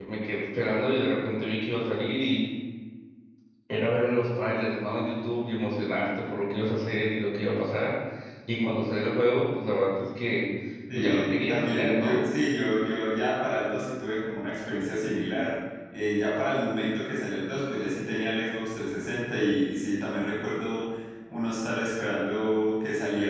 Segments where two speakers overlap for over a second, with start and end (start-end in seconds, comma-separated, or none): 10.9-12.2